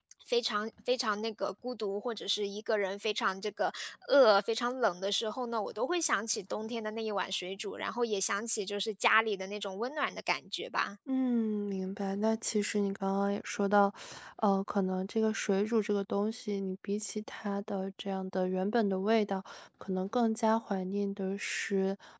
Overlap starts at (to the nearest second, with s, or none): none